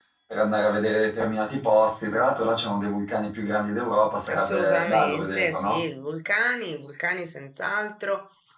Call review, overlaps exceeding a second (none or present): present